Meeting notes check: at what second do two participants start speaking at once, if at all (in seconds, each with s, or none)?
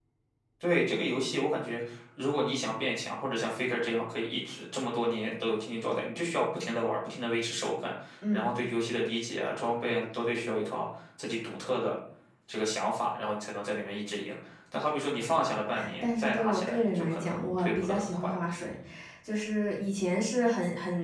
16.0 s